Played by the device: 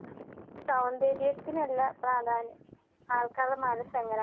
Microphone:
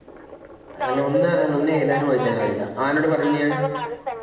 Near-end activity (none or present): present